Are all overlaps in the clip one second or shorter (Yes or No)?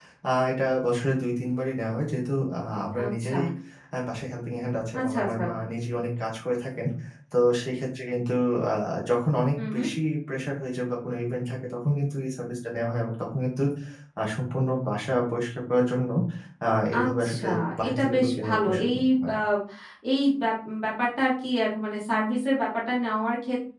No